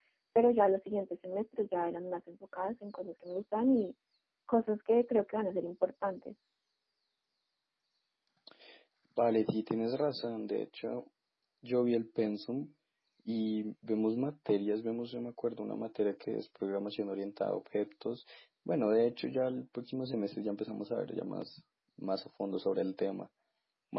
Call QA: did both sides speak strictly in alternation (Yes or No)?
Yes